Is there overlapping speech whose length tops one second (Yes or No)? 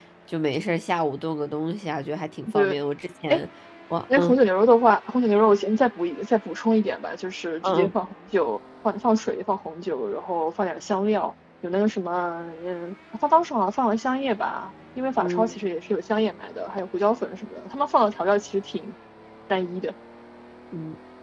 No